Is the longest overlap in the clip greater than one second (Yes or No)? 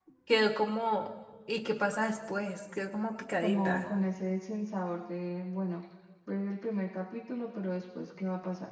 No